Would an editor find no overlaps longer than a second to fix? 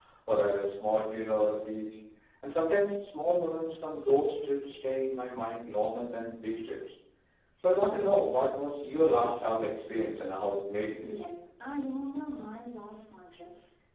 Yes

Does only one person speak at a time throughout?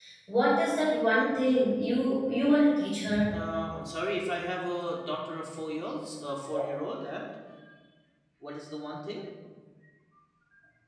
Yes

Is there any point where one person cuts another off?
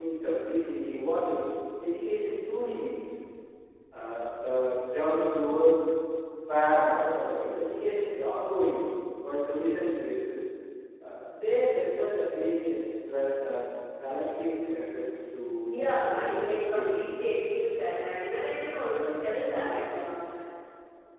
Yes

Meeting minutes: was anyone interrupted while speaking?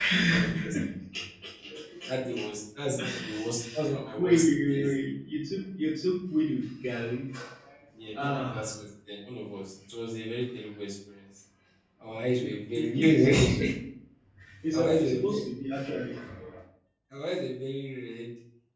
Yes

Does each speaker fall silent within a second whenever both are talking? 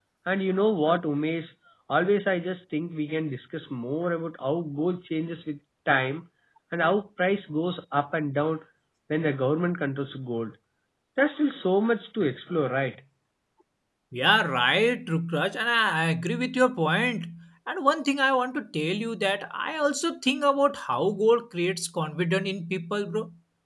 Yes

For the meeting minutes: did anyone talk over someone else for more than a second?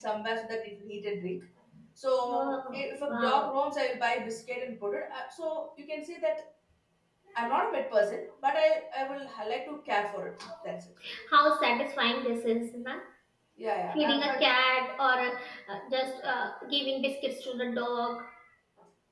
Yes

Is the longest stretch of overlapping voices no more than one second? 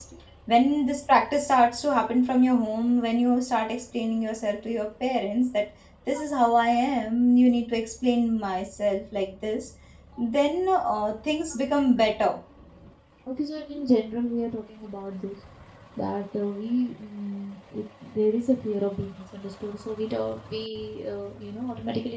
Yes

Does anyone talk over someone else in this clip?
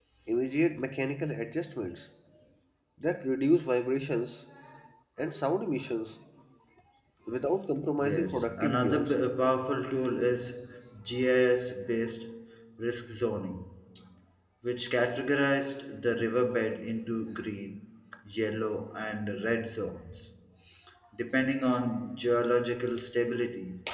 Yes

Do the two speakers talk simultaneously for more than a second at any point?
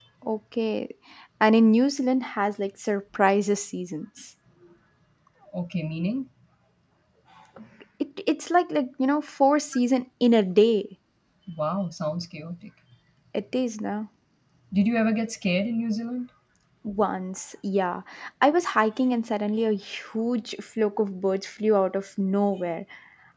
No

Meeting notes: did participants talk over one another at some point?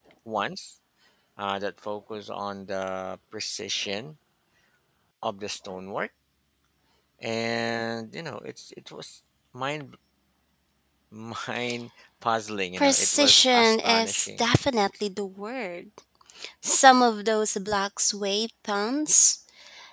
Yes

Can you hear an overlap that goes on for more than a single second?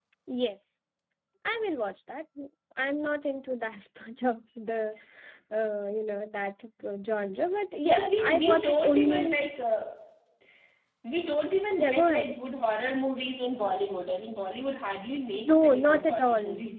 Yes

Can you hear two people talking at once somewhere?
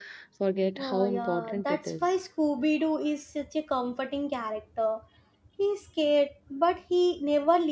Yes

